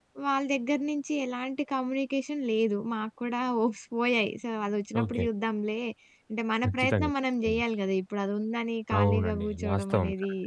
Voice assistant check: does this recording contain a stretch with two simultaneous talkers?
Yes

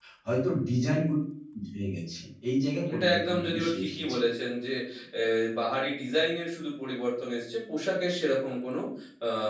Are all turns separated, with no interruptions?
No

